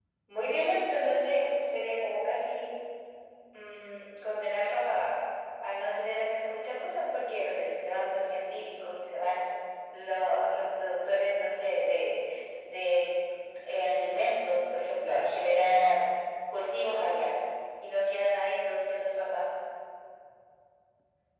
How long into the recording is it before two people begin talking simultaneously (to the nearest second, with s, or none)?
none